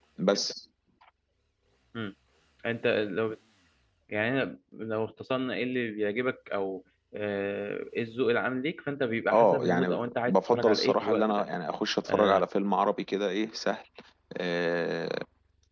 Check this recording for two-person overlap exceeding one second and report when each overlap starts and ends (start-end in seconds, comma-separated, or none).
9.3-11.4